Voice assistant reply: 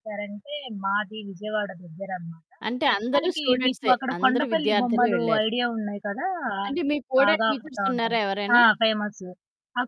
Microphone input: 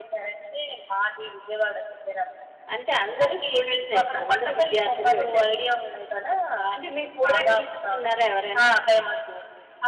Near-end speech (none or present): none